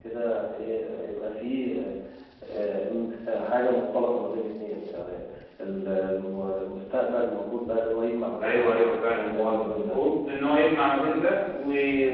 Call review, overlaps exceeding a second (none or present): present